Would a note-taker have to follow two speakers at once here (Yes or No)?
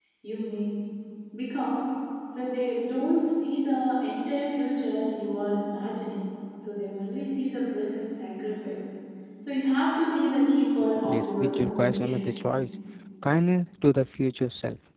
Yes